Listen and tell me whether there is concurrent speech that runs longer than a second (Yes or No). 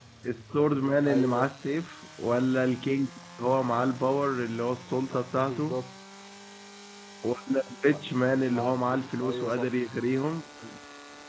Yes